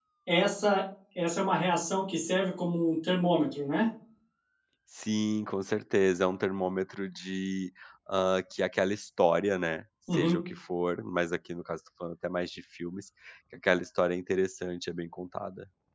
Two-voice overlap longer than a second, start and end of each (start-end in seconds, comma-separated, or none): none